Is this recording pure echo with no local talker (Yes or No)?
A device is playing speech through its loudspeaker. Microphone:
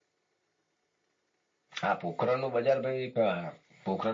No